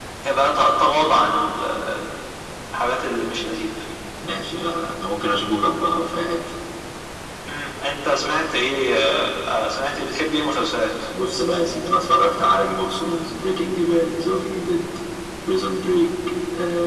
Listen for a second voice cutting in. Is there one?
No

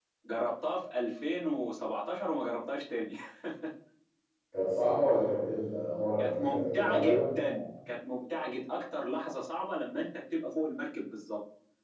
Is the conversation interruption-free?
No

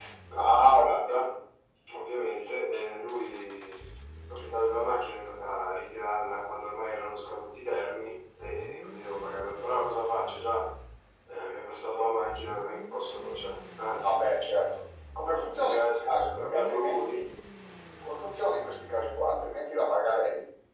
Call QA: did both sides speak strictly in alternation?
No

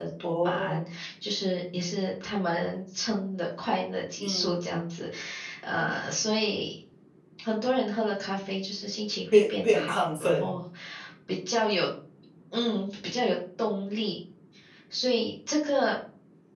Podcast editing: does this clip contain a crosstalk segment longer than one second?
Yes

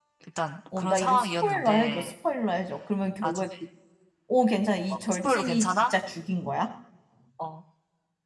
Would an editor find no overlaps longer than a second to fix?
No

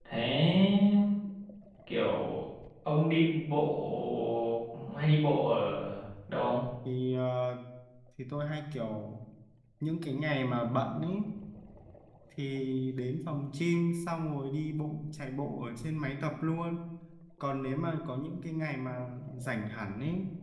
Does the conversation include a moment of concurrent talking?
No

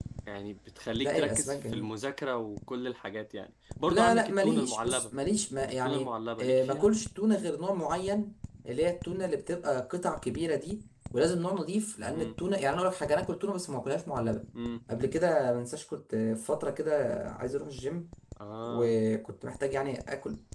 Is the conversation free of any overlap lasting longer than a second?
No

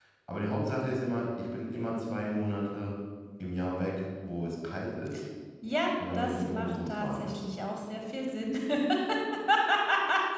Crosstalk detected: Yes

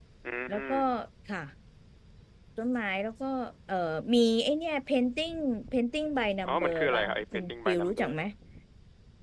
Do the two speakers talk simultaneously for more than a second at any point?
Yes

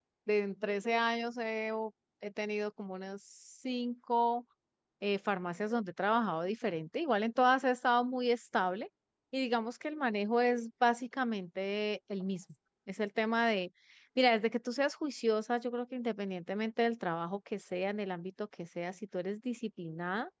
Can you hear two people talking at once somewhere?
No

